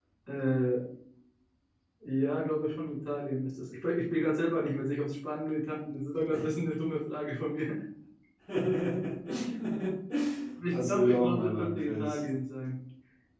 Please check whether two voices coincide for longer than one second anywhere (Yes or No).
Yes